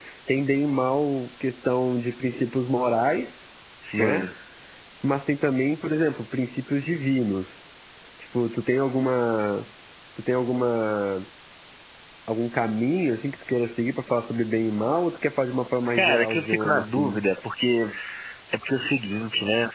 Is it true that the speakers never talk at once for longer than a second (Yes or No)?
No